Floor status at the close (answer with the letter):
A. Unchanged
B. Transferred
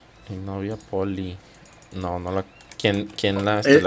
B